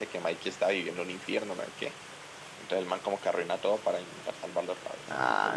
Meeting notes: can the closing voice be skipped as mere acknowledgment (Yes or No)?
No